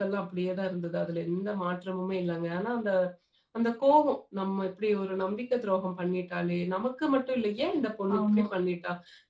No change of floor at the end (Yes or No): Yes